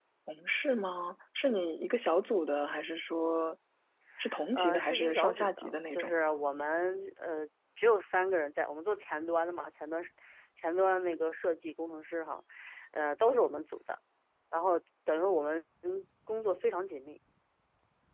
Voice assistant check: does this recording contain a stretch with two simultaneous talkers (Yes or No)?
Yes